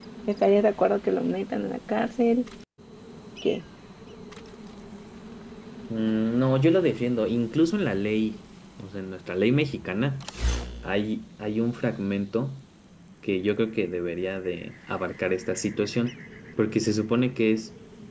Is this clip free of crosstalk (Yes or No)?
Yes